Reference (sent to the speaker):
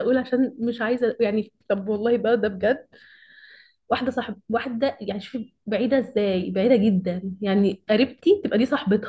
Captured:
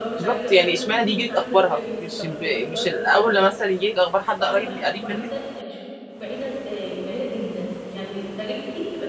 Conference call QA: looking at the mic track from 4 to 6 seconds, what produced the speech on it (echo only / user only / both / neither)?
both